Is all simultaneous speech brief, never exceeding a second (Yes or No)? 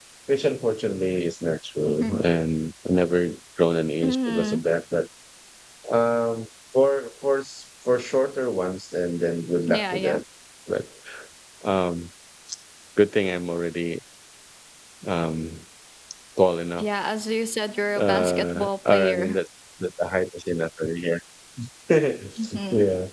No